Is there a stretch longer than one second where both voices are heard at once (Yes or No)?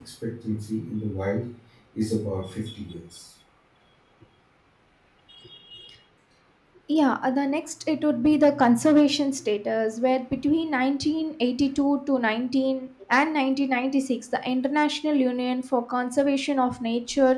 No